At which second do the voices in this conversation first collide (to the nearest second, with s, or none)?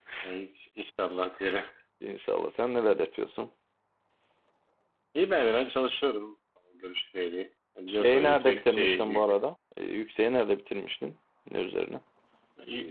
8 s